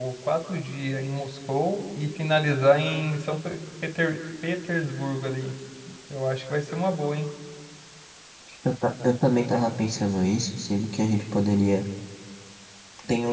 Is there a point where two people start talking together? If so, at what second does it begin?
none

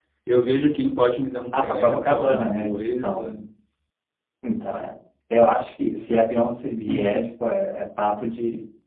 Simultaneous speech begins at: 2 s

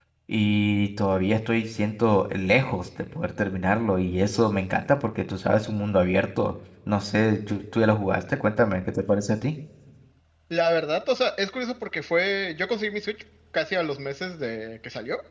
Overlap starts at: none

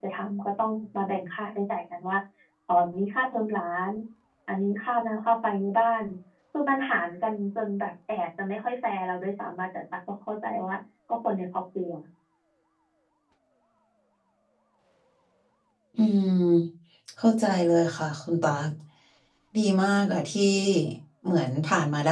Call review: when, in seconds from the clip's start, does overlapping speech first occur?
none

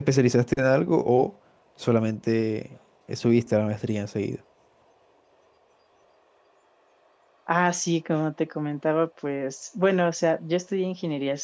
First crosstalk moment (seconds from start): none

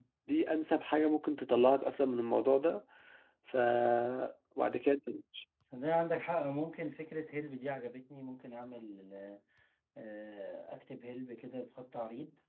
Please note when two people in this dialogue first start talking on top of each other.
none

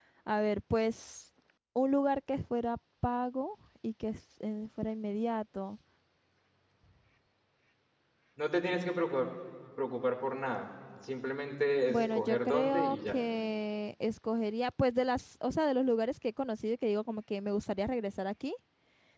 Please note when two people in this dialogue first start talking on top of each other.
12 s

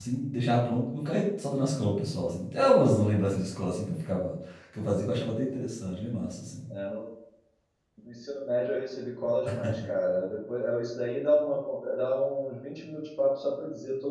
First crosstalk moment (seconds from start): none

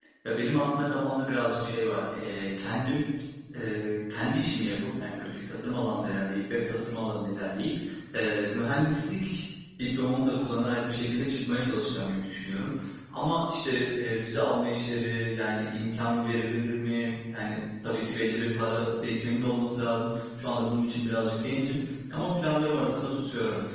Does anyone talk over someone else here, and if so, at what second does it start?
none

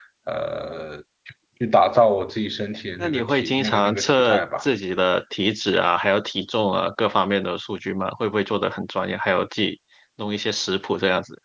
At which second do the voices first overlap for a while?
3 s

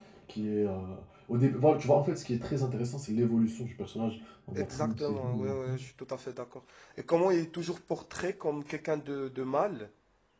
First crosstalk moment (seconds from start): 5 s

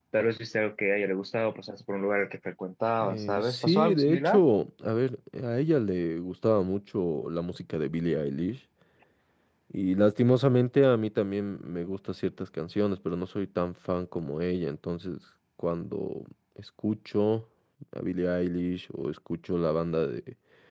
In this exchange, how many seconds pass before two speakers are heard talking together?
3 s

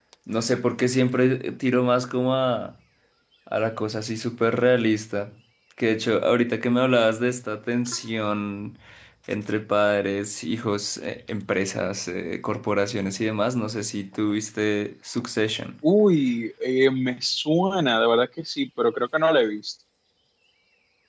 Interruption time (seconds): none

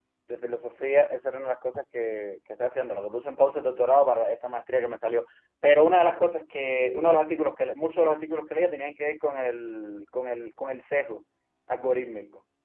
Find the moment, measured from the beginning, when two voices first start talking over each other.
none

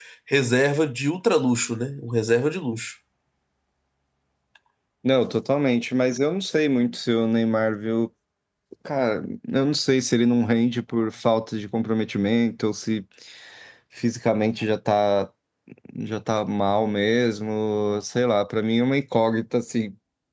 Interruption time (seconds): none

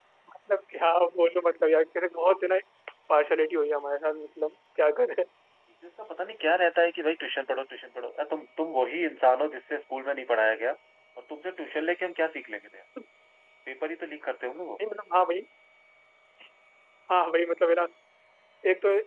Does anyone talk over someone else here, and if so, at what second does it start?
none

